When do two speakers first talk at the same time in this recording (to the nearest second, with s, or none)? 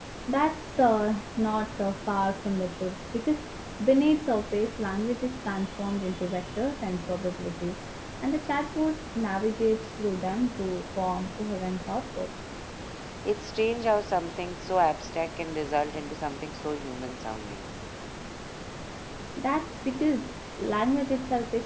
none